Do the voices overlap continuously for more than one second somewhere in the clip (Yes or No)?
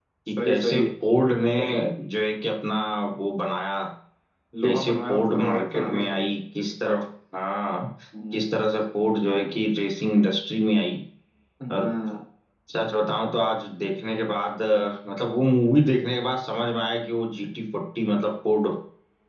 Yes